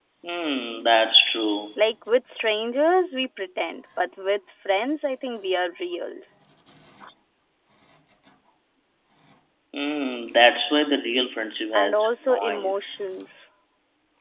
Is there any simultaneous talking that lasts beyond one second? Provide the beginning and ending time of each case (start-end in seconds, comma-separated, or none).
11.7-13.0